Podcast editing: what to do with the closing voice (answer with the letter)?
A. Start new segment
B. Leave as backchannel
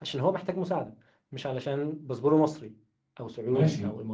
A